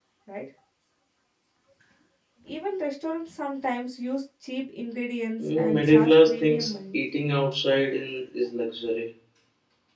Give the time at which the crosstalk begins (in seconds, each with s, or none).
5.4 s